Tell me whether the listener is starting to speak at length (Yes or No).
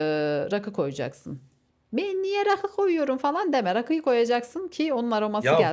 Yes